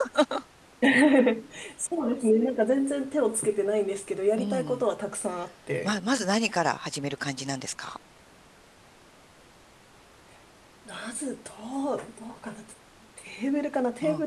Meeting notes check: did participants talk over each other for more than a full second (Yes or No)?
No